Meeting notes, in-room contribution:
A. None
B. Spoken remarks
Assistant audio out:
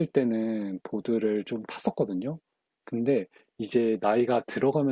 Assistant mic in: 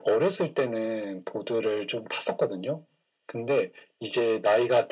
A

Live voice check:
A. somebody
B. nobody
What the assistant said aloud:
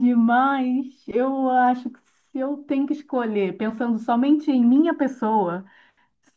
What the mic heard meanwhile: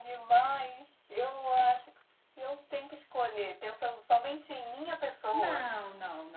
A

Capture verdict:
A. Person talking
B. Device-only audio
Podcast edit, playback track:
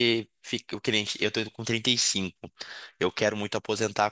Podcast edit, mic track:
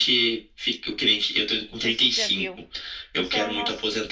A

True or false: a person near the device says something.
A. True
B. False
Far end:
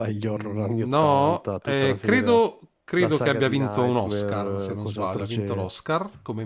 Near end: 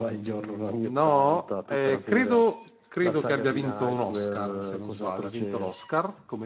B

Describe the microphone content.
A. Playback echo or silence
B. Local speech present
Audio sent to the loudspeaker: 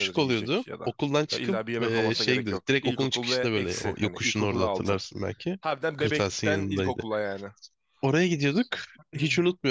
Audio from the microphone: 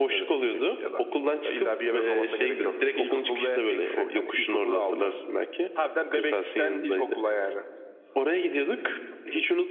A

